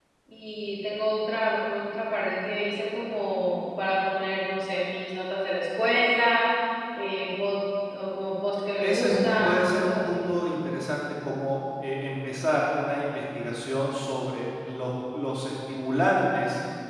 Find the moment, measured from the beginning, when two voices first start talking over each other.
8.8 s

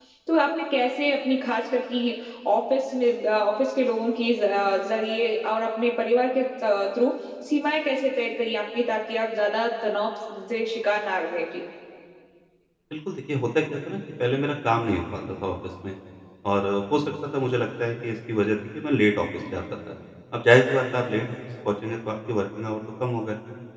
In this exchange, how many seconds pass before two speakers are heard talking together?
none

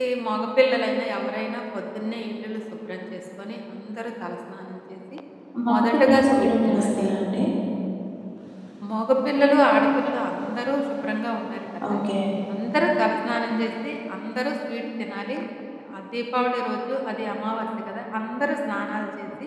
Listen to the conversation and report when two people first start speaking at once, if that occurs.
5.7 s

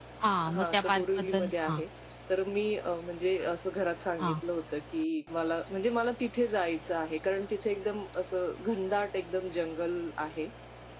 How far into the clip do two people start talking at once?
0.5 s

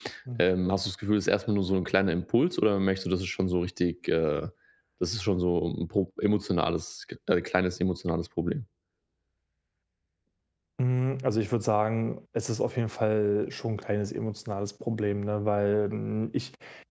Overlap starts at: none

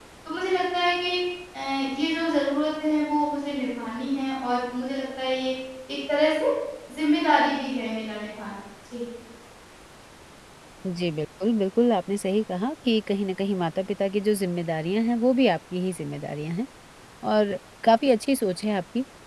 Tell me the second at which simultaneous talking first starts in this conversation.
none

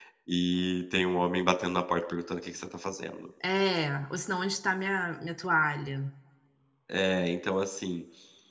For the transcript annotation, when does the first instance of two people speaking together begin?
none

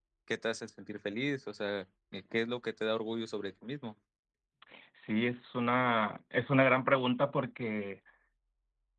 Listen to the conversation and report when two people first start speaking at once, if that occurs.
none

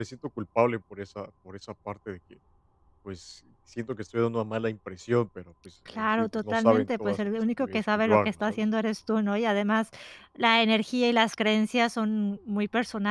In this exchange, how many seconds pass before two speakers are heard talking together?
5.9 s

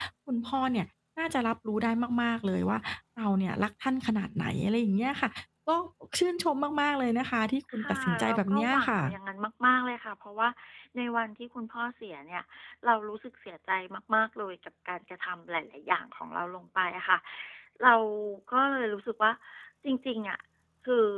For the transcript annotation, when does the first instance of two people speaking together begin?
7.7 s

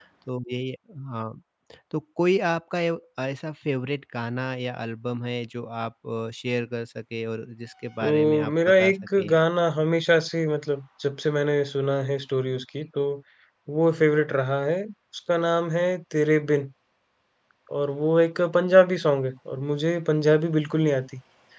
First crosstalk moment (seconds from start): 8.0 s

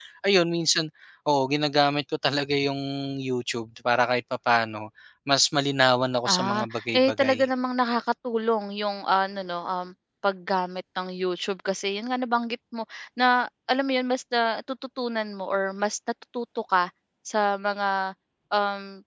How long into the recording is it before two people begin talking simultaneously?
6.2 s

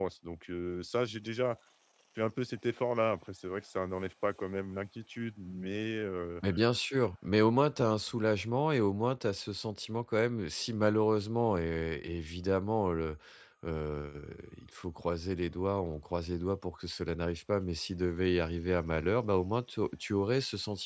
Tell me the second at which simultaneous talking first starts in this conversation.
none

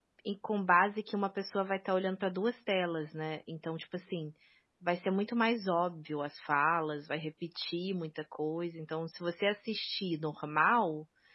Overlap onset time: none

